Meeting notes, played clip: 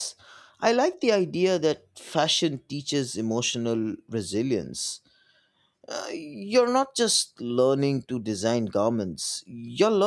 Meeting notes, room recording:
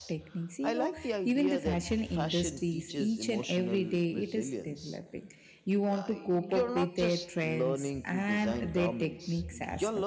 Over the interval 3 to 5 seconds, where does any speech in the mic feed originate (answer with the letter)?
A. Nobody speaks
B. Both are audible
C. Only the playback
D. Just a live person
B